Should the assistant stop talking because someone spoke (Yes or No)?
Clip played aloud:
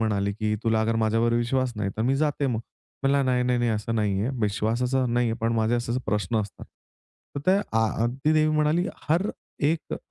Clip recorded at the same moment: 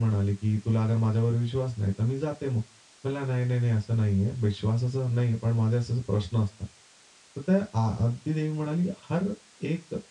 No